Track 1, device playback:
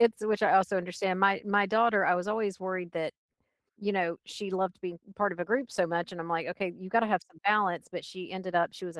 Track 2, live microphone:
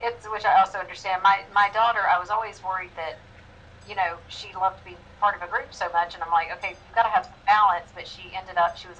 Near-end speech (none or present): none